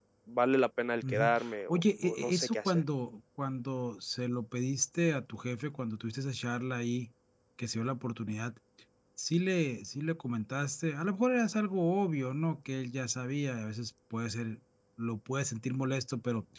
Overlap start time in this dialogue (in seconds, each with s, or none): 1.1 s